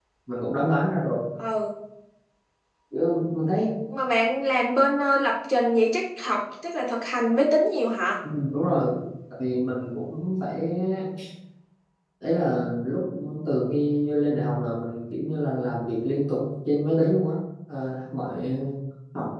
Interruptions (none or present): none